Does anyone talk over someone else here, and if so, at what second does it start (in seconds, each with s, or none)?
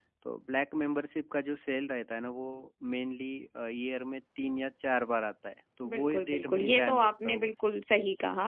5.8 s